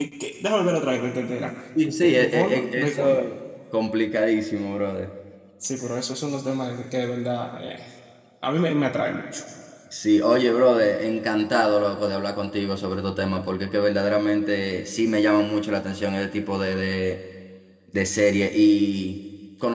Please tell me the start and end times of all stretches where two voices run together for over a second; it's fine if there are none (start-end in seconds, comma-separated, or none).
2.0-3.2